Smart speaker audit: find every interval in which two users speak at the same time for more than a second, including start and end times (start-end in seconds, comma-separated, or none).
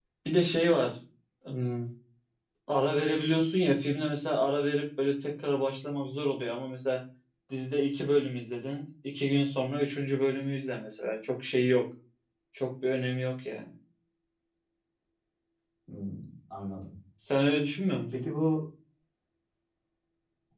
none